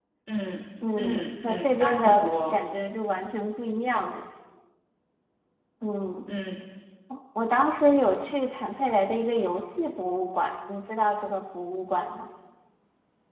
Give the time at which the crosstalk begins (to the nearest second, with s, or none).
1 s